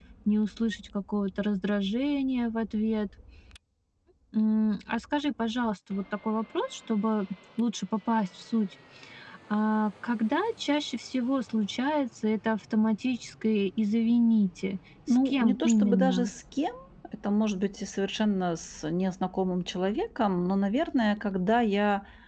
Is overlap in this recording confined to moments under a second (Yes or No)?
No